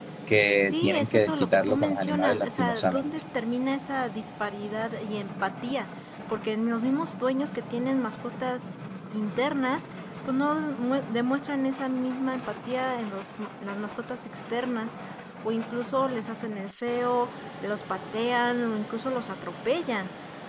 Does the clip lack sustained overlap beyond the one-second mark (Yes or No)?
No